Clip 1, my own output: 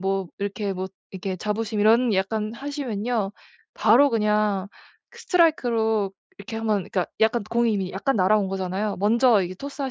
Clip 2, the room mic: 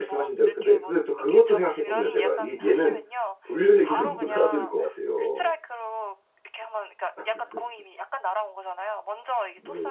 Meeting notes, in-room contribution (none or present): present